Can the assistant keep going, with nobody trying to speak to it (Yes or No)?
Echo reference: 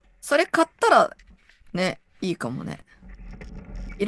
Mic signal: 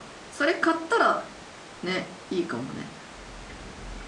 Yes